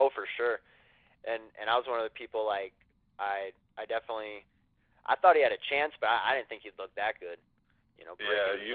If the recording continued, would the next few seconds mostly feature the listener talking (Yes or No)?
Yes